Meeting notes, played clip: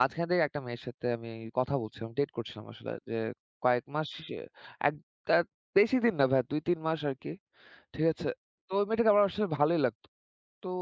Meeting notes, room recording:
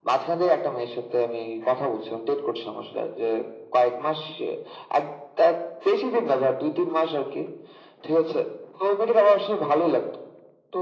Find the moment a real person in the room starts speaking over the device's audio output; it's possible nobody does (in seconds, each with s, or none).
none